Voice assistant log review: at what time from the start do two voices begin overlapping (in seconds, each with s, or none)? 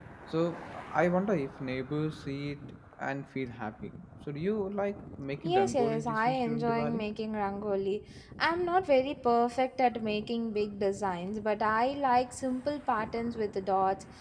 5.4 s